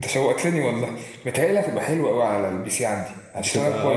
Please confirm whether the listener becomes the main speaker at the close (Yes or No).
No